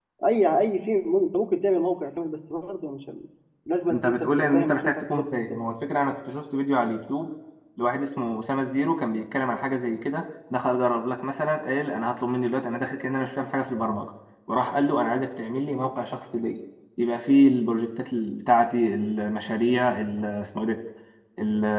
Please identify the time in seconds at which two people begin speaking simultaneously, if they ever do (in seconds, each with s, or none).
3.9 s